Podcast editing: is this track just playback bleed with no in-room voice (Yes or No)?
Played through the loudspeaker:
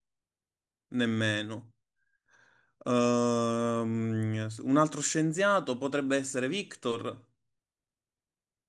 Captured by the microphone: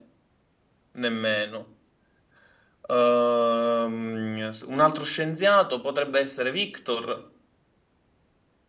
Yes